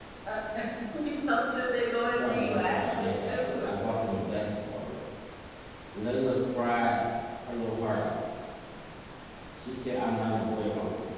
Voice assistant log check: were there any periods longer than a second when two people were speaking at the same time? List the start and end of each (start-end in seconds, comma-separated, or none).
2.1-3.7